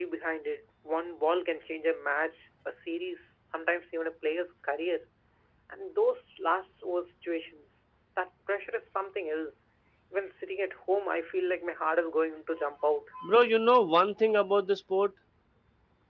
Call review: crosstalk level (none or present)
none